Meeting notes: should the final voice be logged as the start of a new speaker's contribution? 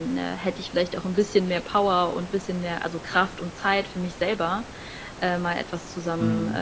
No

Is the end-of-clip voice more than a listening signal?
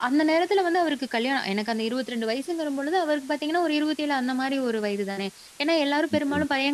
No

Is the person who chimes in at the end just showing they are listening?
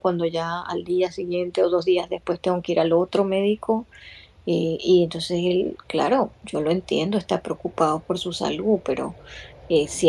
Yes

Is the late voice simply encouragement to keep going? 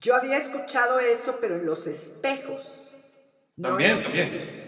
No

